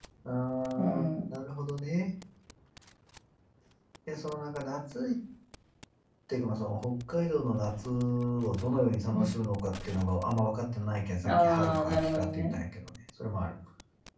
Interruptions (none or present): present